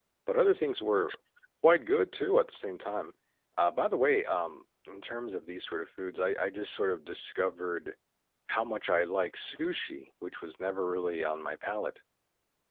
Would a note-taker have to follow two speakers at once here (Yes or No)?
No